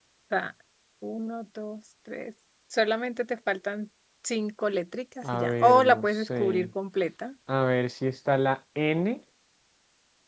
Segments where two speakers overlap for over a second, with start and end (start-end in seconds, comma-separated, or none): 5.3-6.7